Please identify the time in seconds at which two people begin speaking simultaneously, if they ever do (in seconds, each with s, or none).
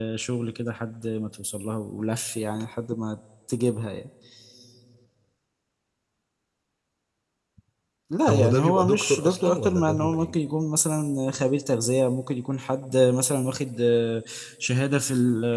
8.3 s